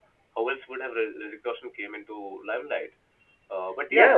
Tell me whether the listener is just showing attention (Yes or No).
No